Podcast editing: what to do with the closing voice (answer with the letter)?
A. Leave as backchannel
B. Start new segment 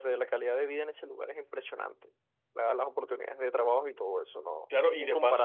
B